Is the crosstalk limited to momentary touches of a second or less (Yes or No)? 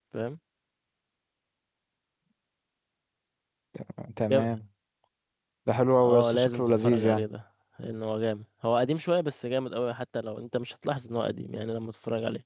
No